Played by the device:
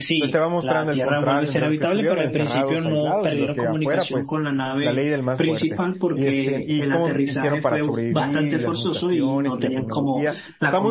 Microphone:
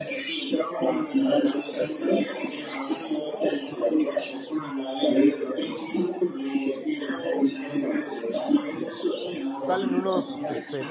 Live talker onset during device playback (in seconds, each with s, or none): 9.6 s